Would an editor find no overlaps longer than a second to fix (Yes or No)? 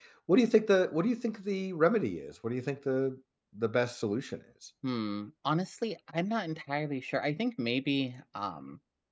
Yes